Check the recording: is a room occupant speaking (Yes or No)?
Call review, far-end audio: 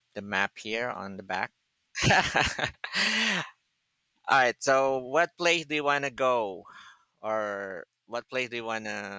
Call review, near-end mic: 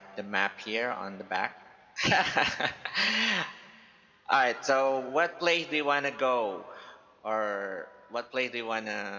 No